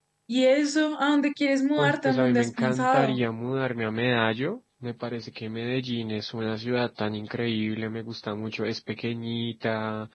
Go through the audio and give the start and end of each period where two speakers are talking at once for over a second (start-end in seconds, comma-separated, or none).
1.8-3.2